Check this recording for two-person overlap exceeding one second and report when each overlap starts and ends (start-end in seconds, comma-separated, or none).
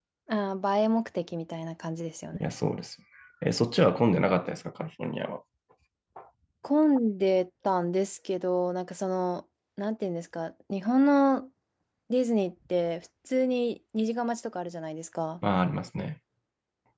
none